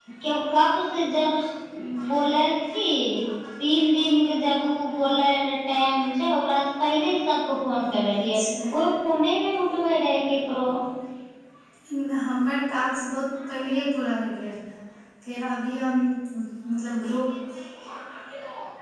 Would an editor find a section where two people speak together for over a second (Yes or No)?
No